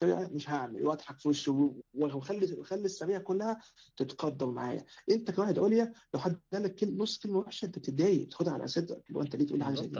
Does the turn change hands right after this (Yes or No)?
Yes